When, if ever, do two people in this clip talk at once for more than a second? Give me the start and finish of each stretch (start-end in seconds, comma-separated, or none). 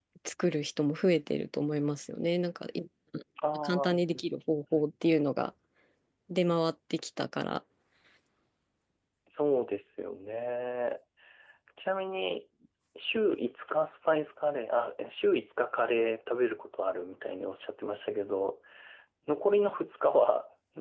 none